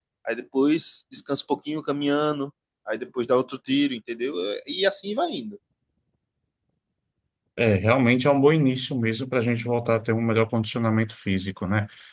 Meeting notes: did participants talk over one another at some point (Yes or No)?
No